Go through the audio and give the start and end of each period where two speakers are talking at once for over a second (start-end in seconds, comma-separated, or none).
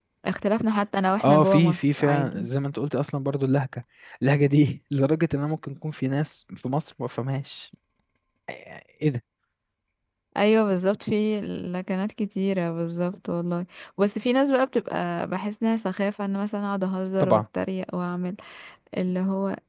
1.2-2.5